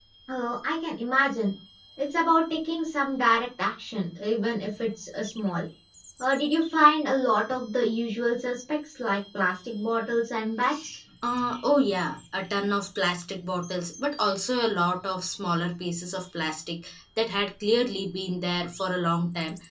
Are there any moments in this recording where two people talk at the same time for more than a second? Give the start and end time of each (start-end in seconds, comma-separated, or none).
none